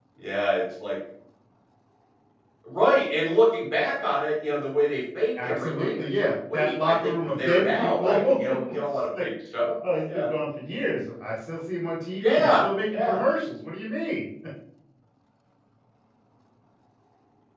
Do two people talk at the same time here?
Yes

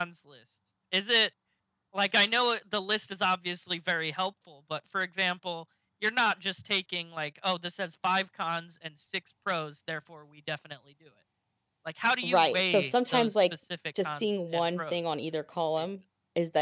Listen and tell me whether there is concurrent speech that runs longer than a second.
Yes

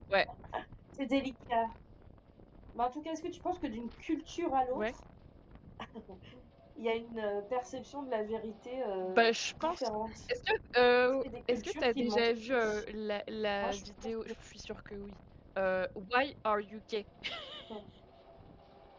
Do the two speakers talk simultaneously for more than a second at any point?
Yes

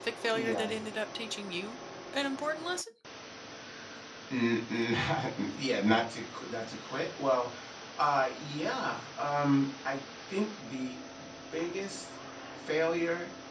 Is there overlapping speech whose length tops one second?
No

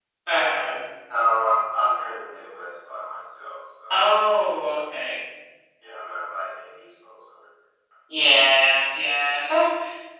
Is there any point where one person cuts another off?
No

